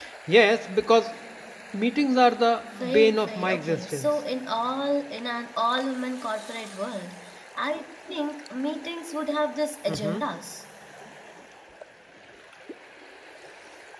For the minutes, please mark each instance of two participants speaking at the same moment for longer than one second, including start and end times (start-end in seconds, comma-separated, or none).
2.8-4.1